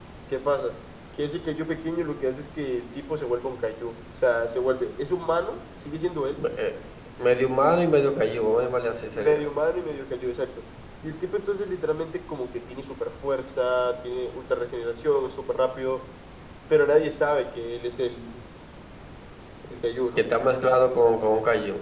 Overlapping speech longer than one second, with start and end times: none

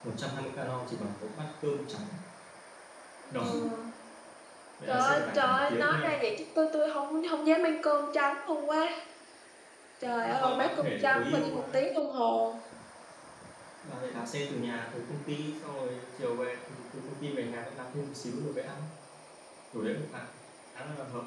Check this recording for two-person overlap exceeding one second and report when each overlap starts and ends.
4.9-6.1, 10.0-11.8

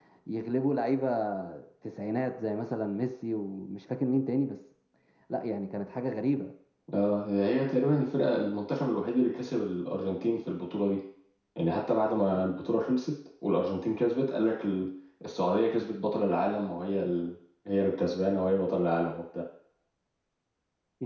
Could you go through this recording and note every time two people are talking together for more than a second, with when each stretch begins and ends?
none

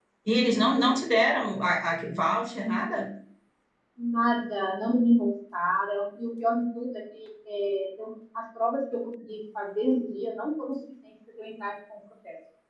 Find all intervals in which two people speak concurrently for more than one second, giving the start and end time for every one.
none

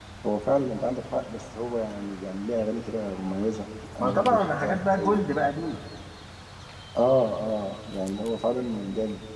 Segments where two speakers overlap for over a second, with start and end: 4.0-5.3

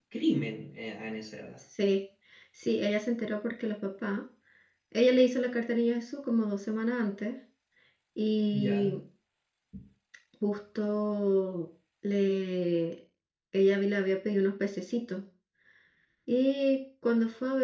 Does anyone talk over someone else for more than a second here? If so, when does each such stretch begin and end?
none

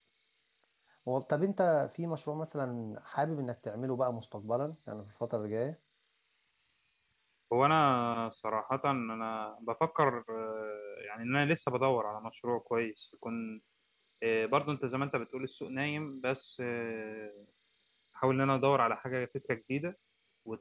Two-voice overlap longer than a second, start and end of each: none

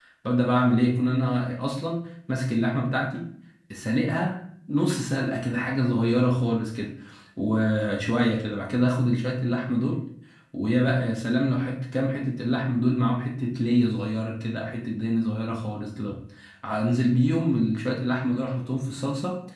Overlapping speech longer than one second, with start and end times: none

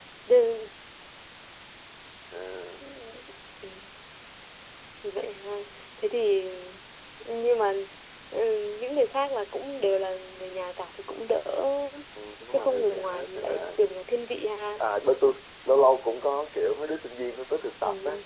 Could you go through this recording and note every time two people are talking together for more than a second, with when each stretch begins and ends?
12.5-13.8

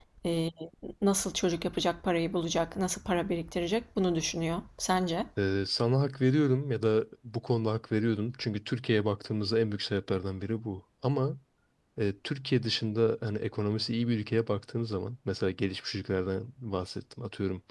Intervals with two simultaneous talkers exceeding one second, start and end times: none

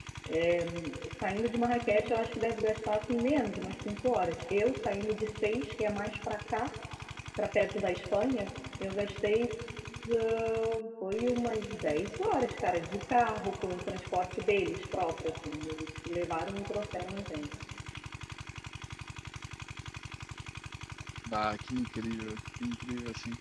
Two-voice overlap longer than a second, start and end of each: none

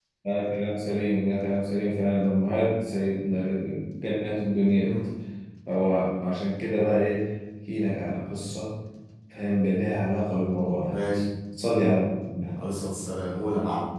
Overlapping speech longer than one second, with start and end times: none

